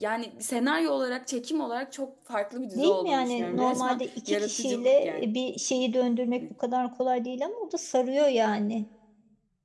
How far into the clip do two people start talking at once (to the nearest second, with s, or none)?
3 s